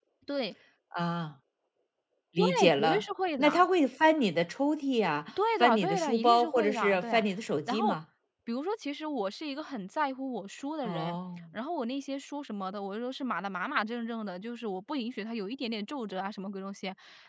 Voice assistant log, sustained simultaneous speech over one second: present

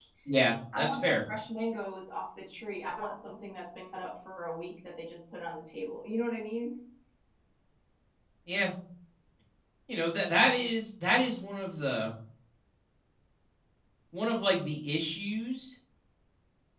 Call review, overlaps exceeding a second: none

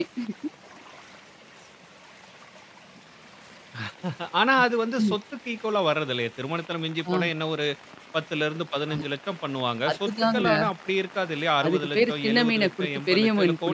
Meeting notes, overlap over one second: present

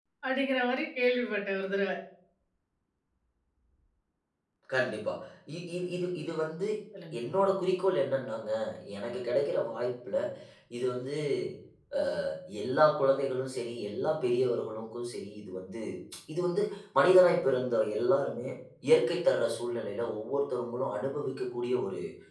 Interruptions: none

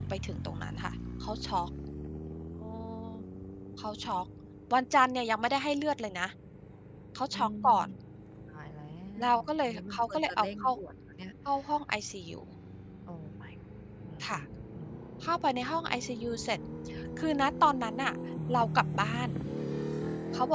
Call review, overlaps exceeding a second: present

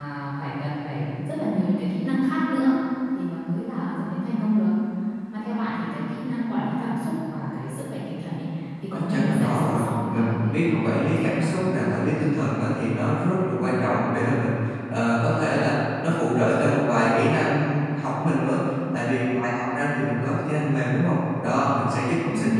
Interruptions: present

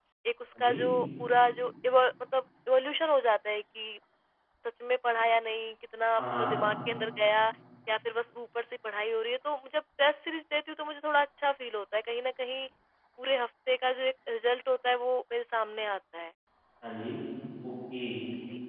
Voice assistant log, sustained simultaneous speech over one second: none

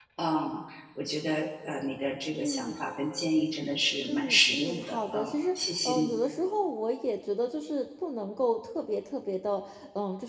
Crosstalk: present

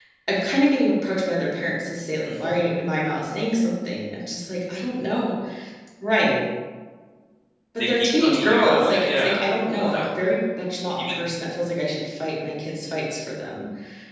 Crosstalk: present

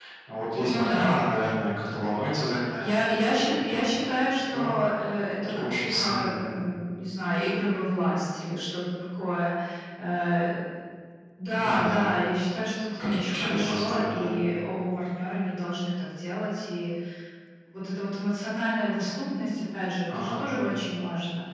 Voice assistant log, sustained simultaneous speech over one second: present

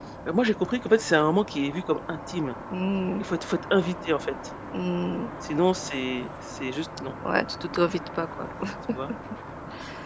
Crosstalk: none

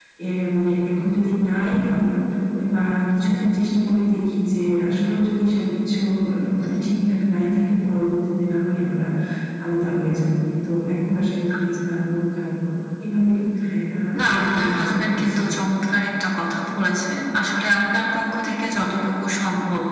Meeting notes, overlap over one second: present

